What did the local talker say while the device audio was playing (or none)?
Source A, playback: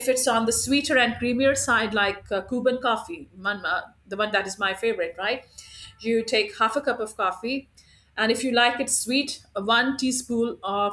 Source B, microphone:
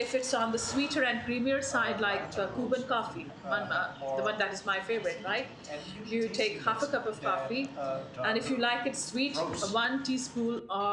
uh, lighter roasts often ha- uh, have more acidity and unique tasting notes than uh, darker roasts.